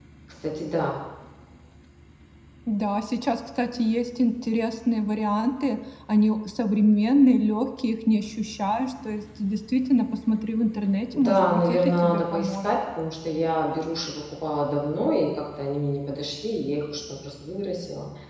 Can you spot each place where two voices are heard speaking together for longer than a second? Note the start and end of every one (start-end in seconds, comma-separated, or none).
11.1-12.8